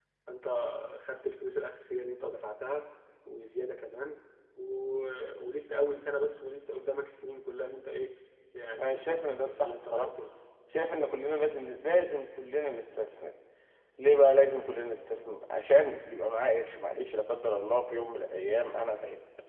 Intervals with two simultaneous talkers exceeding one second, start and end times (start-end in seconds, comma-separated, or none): 8.8-10.1